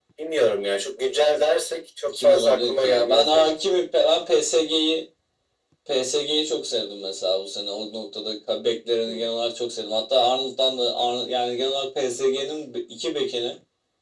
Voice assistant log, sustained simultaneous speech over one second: present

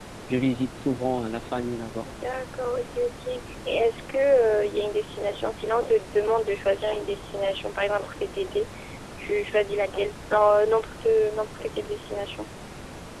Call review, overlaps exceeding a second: none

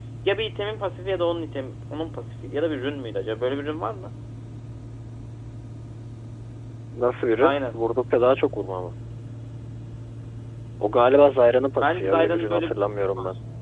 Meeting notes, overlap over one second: present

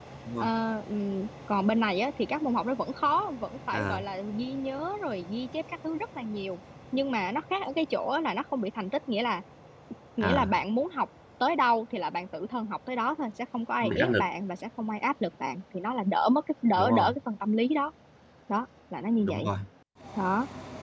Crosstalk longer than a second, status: none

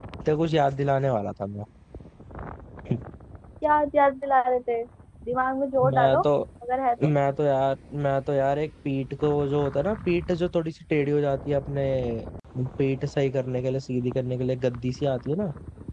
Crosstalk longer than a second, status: none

